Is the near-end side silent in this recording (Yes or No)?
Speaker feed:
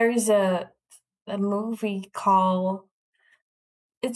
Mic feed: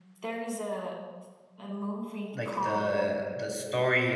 No